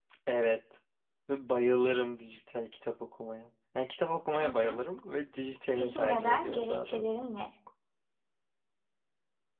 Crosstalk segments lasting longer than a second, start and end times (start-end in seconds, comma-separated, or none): 5.8-7.2